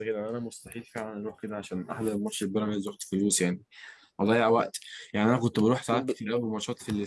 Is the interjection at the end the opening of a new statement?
No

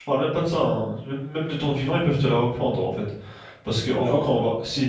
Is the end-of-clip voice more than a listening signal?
No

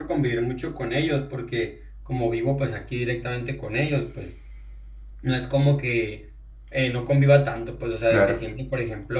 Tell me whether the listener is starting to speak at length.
No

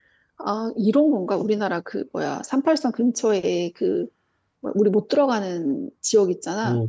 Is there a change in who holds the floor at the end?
Yes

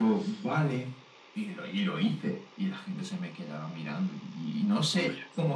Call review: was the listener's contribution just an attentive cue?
Yes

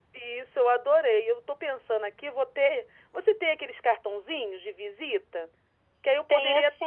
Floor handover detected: No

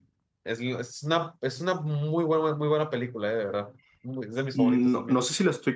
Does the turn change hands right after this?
Yes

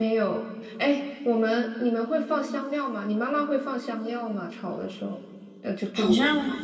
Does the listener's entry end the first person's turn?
Yes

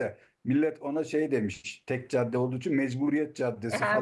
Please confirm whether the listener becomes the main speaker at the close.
Yes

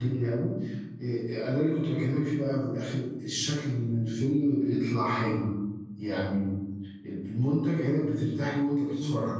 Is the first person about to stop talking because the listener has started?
No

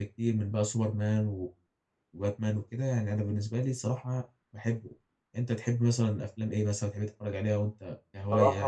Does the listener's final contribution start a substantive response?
Yes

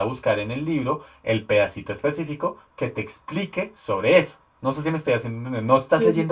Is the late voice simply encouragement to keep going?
Yes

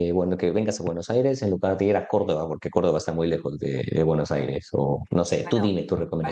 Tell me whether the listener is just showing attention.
No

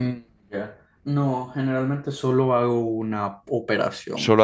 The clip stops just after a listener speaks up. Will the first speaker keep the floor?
No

